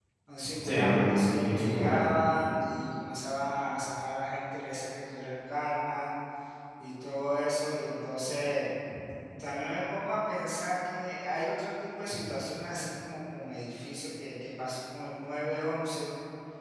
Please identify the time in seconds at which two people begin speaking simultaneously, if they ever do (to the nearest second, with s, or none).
1 s